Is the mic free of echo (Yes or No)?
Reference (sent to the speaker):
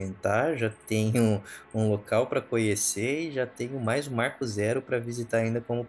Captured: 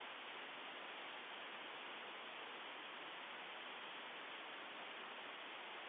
Yes